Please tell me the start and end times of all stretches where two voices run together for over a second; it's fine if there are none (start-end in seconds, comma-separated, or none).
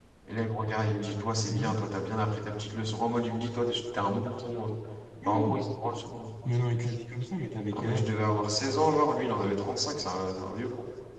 none